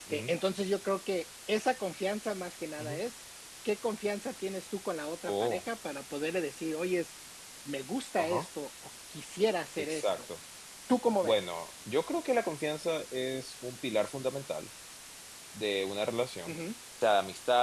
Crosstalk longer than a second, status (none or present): none